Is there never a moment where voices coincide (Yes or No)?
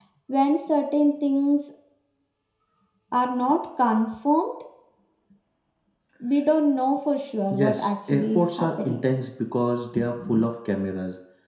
No